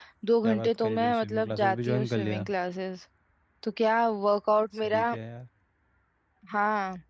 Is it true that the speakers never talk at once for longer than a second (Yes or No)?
No